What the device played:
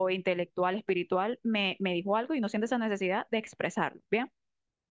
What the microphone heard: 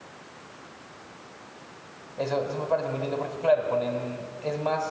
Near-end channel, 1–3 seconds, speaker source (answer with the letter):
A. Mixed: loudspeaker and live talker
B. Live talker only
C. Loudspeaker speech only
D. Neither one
B